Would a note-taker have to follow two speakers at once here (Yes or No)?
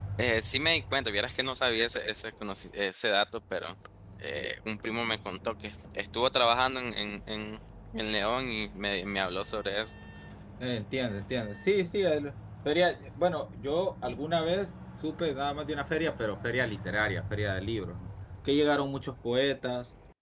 No